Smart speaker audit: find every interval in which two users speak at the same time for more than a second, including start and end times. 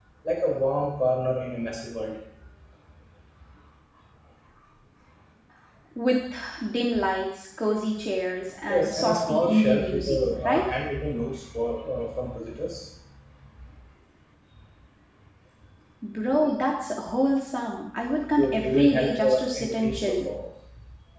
8.7-10.6, 18.4-20.2

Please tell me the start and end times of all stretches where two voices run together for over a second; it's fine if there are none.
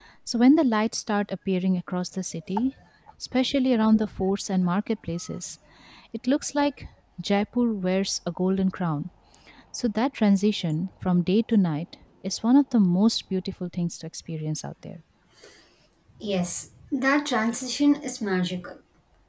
none

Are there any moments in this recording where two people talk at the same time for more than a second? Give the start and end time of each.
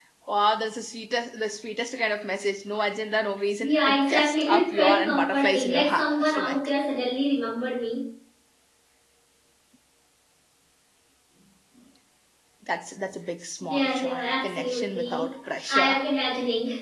3.6-6.7, 13.7-15.3

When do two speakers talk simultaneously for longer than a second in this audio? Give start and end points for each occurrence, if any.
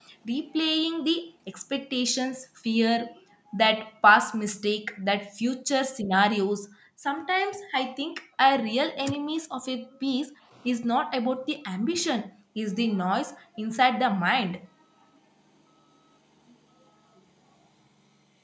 none

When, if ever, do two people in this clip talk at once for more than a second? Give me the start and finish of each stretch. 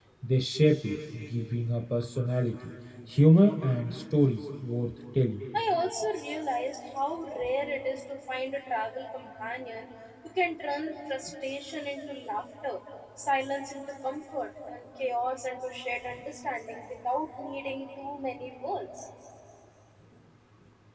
none

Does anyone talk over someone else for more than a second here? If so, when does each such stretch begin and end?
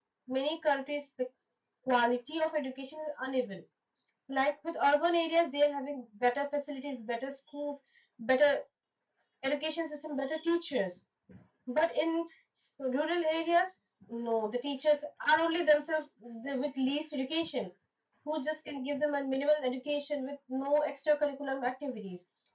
none

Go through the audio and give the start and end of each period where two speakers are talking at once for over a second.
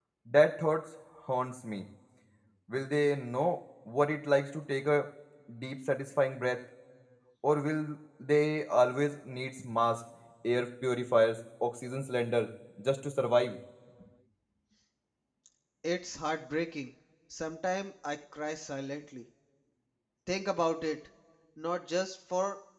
none

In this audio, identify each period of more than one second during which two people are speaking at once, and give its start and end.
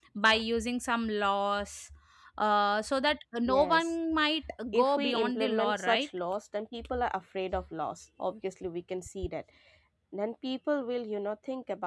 4.7-6.1

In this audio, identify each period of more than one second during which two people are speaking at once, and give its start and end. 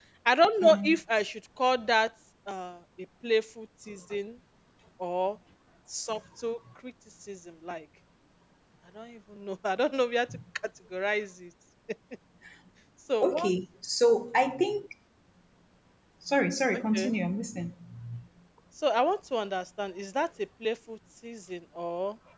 none

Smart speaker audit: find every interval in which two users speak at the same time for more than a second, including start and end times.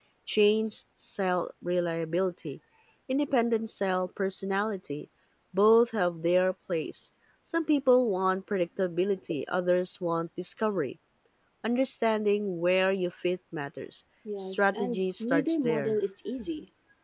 14.4-16.0

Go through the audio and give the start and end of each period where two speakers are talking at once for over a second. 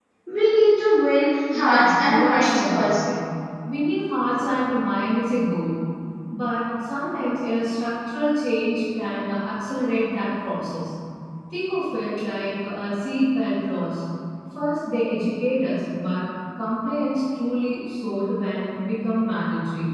1.5-3.0

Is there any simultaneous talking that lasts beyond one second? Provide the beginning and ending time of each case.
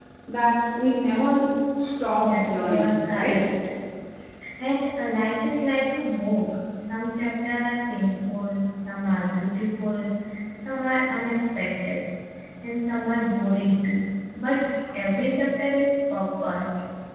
2.2-3.4

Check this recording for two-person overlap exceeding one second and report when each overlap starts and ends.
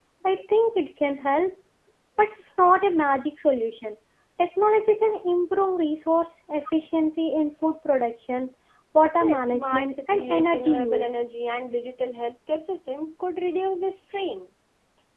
9.2-11.2

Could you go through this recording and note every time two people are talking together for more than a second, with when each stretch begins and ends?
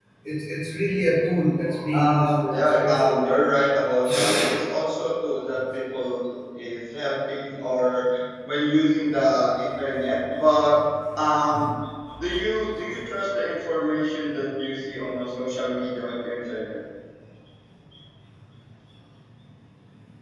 1.9-3.6

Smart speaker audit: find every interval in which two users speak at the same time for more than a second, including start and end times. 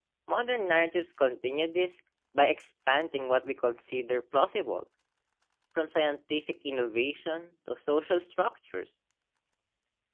none

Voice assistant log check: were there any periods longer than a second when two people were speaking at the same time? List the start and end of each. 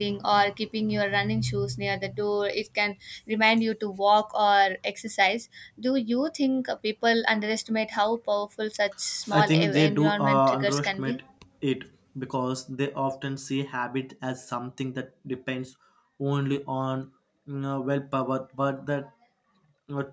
9.3-11.2

